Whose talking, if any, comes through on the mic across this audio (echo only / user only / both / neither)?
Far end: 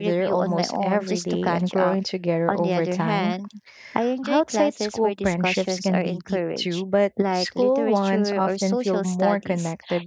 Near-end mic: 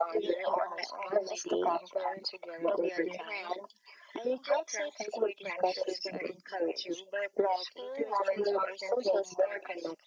echo only